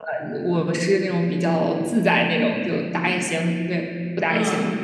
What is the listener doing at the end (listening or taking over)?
taking over